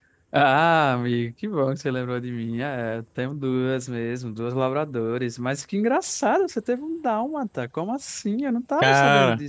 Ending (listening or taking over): listening